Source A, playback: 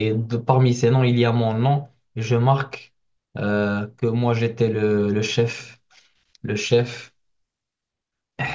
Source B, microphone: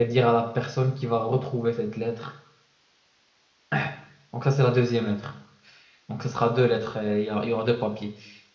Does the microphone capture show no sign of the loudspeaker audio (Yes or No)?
Yes